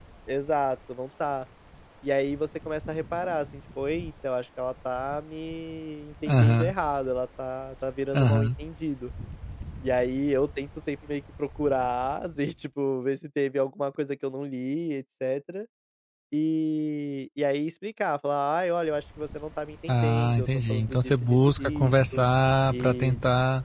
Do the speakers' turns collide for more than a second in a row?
Yes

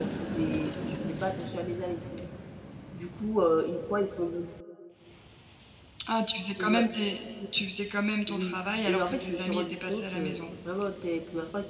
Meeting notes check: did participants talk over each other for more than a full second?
Yes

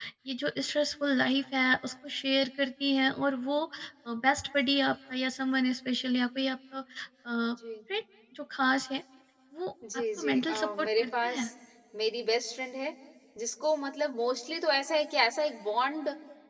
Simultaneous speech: Yes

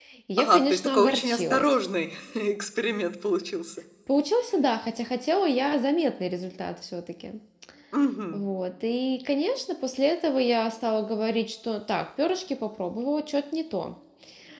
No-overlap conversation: No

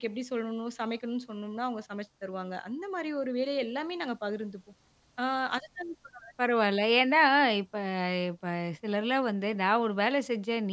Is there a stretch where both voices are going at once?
No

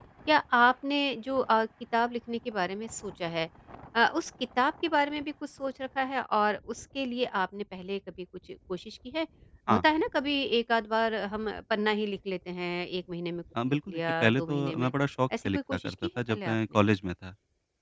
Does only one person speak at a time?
No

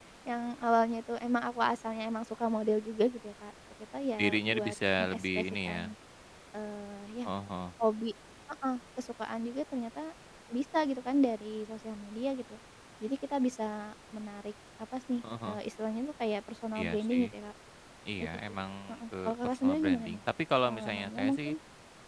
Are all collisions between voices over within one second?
No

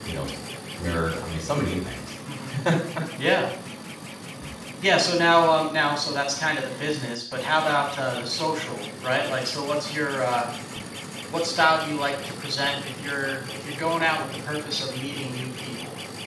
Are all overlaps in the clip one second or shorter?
Yes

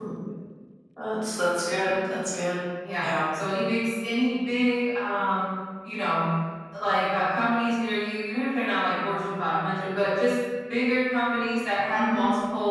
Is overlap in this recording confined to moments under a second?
Yes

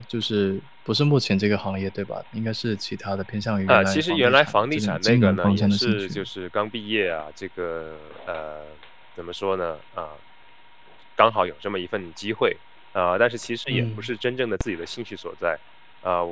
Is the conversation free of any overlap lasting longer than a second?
No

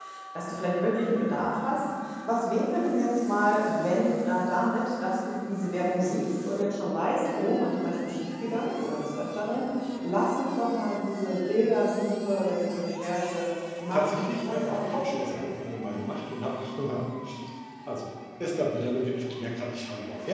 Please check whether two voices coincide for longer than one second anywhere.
Yes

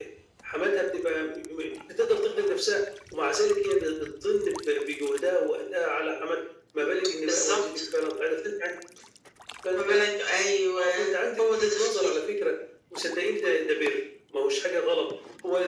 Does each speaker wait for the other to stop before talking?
No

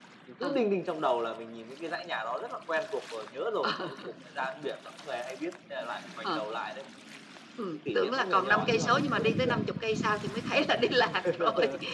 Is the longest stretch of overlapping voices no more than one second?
No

